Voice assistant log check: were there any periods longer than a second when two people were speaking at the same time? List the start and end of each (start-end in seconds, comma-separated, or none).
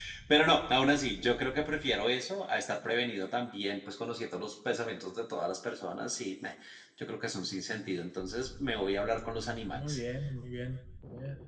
none